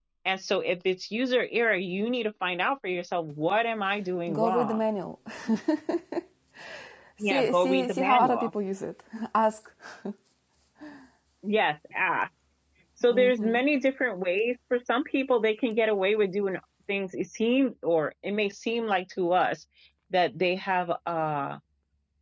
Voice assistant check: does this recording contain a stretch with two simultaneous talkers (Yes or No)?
Yes